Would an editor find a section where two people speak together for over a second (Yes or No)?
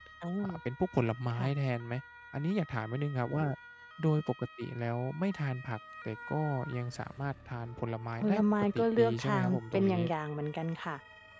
Yes